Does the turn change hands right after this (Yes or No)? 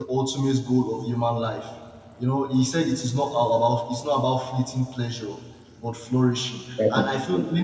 No